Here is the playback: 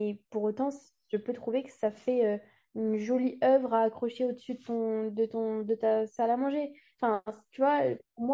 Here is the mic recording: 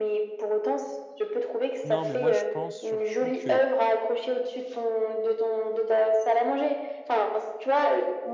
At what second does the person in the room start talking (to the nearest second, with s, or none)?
2 s